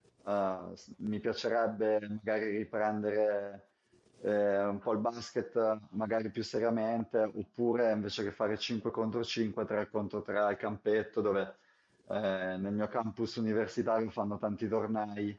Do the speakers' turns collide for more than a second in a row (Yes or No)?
No